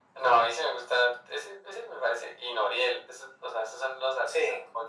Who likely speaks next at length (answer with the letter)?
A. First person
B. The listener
A